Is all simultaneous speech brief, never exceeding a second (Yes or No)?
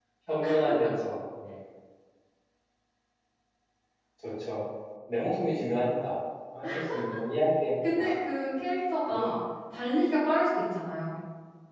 Yes